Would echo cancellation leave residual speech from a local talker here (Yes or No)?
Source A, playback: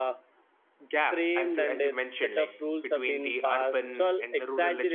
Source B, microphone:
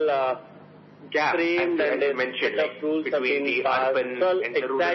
No